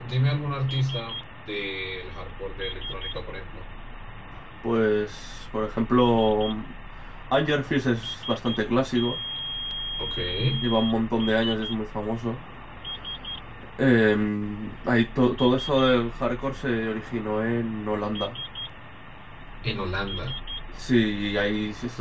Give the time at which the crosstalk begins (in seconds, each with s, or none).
none